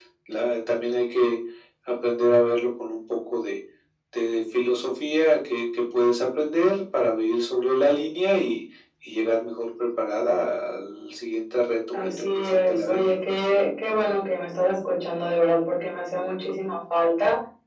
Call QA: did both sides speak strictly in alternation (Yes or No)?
No